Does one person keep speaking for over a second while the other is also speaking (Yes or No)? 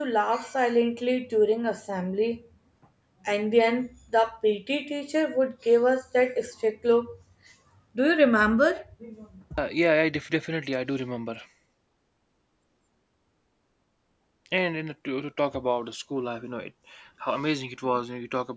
No